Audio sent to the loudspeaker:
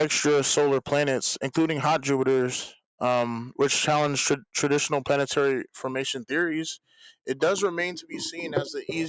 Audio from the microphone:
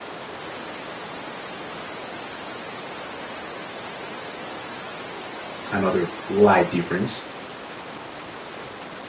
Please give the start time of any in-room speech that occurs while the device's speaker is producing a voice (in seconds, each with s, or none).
5.7 s